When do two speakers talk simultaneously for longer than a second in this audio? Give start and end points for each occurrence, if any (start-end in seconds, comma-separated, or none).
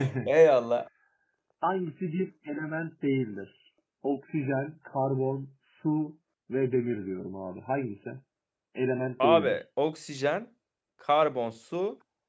none